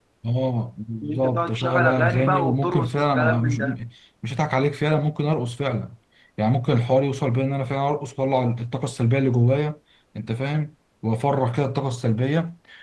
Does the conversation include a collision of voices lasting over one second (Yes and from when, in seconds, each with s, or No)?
Yes, from 1.0 s